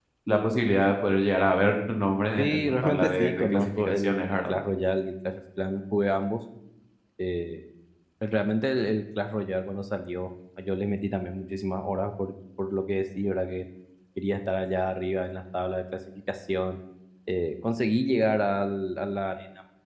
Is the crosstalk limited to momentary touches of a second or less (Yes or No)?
No